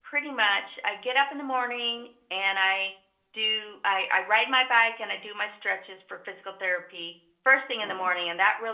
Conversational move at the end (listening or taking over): listening